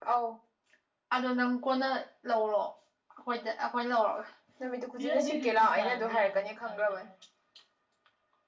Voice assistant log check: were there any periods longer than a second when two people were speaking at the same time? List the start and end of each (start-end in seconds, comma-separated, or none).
5.0-6.8